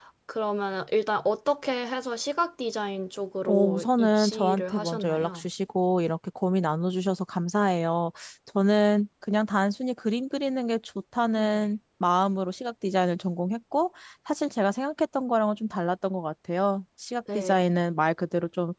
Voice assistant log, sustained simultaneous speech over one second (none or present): present